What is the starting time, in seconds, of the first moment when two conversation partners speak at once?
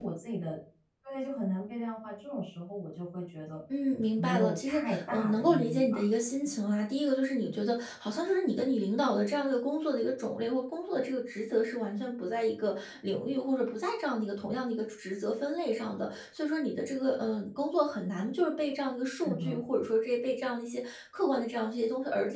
4.2 s

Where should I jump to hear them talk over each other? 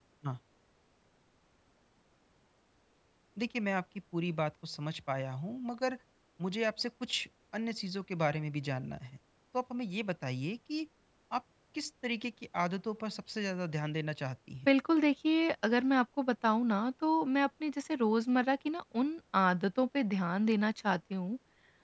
none

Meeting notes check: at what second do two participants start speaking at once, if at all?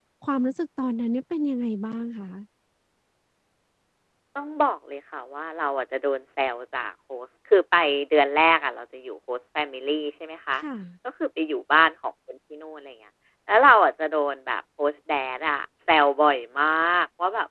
none

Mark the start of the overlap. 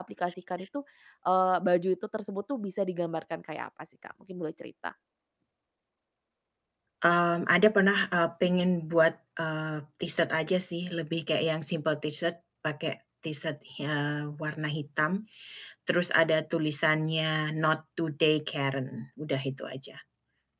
none

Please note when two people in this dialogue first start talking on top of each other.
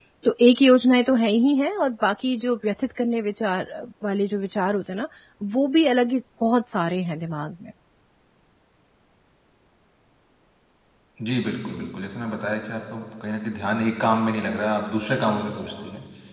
none

